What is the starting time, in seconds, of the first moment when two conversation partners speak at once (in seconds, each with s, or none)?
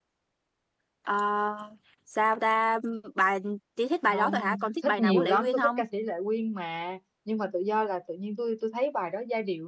4.1 s